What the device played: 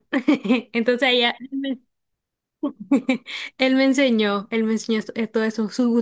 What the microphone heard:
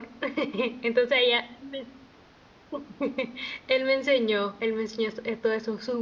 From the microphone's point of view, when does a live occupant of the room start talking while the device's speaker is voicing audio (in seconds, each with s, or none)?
none